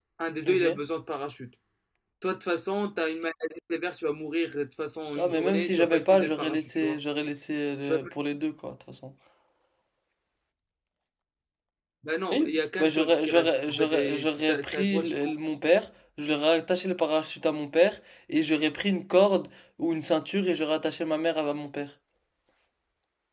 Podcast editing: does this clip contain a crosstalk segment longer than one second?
Yes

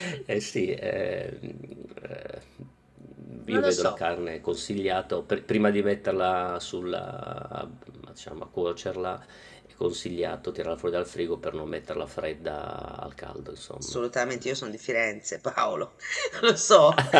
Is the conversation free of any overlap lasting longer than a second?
Yes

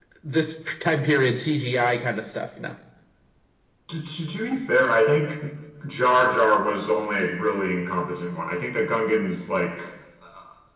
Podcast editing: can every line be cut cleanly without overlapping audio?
Yes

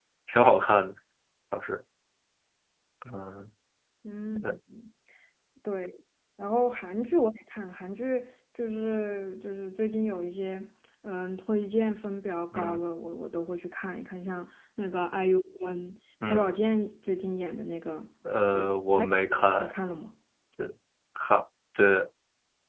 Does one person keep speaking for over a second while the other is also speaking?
Yes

